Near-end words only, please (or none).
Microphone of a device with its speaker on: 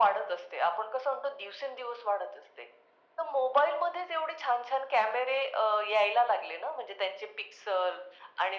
none